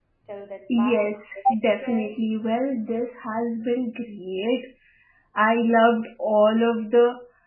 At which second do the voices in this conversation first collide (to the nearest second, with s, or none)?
1 s